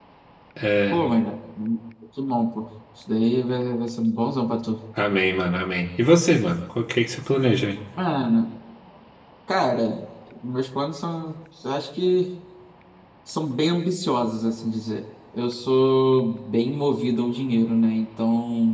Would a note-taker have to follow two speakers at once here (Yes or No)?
No